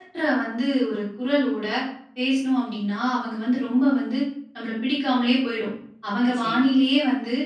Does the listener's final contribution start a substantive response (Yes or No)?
No